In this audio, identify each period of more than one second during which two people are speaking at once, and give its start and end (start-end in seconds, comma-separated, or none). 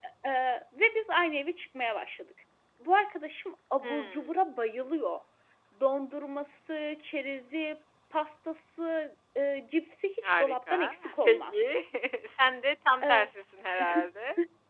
10.2-11.7